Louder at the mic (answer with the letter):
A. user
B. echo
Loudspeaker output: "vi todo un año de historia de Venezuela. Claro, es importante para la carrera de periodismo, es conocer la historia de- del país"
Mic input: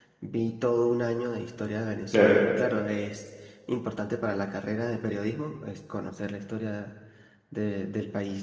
A